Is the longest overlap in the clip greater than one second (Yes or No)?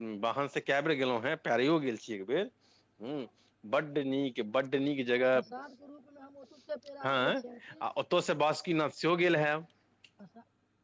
No